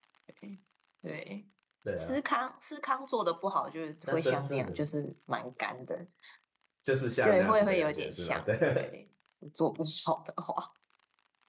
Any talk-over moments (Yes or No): Yes